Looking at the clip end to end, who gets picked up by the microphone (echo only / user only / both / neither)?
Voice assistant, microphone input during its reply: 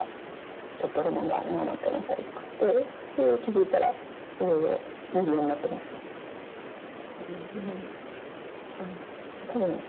echo only